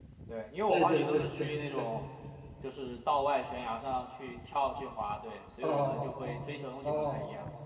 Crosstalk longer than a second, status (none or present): present